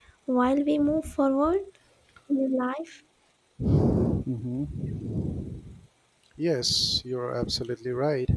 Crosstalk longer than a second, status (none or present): none